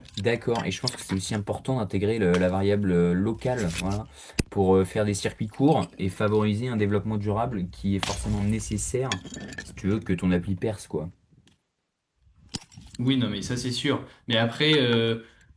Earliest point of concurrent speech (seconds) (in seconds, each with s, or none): none